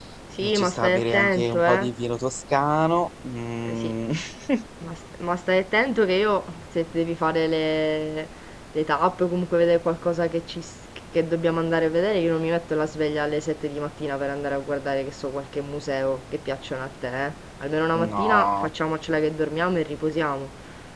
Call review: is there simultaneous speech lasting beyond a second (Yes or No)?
Yes